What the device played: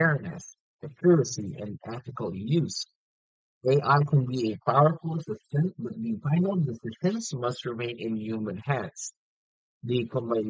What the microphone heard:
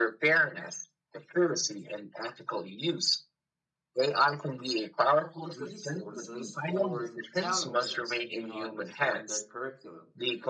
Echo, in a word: present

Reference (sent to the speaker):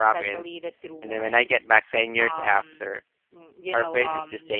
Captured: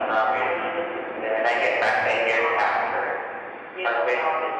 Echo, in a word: present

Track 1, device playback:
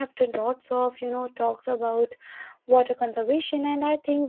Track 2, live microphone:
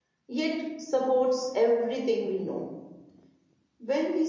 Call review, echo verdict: none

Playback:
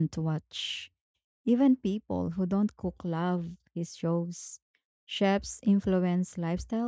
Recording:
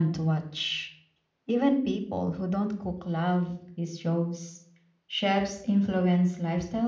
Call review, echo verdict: present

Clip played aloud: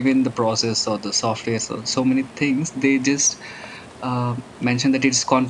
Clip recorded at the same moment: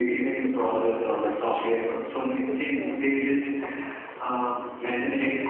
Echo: present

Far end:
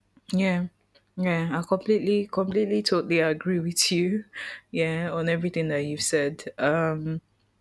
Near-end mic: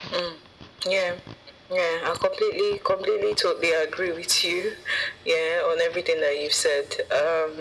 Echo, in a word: present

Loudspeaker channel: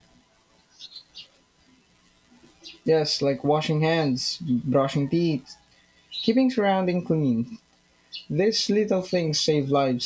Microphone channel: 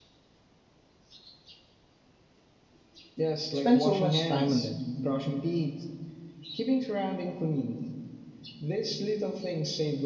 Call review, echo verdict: present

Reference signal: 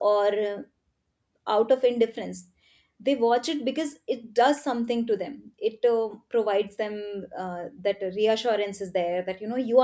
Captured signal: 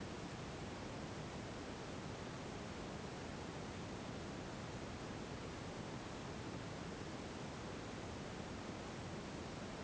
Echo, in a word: none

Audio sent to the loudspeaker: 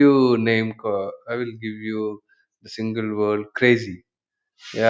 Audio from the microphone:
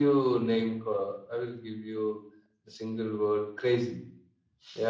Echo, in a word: present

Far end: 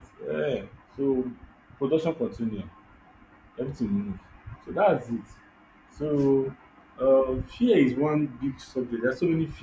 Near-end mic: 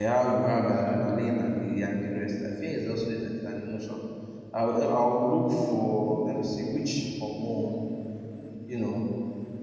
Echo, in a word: none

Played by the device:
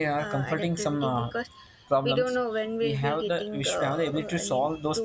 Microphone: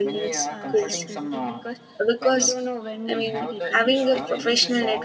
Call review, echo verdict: present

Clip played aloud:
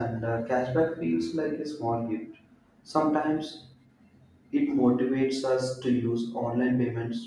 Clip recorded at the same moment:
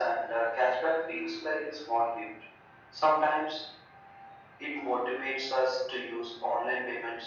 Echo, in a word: present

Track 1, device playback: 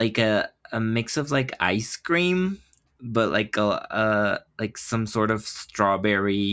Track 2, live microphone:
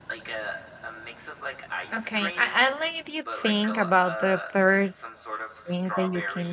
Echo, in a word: present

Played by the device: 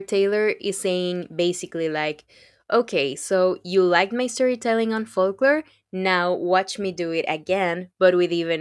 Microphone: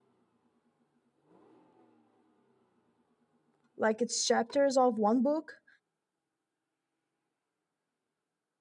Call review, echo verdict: none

